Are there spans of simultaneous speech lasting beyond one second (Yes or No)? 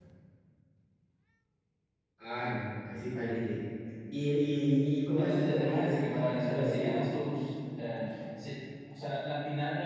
Yes